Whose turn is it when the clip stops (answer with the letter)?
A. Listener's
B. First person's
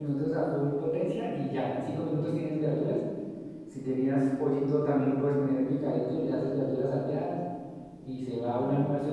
B